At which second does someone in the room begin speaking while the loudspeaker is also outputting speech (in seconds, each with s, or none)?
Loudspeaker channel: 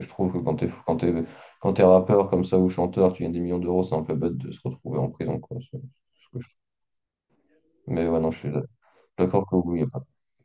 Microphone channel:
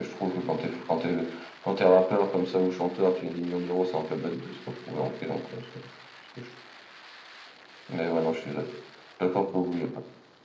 none